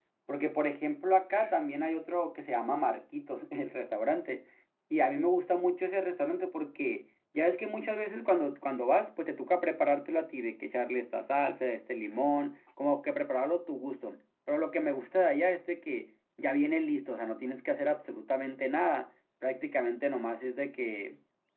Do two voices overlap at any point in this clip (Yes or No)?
No